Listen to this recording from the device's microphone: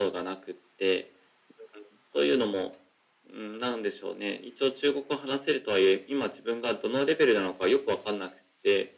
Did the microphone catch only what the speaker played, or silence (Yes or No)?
Yes